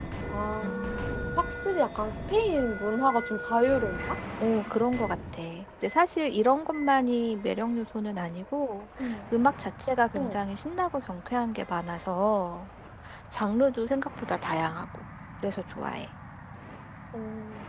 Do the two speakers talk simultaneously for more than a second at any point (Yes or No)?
No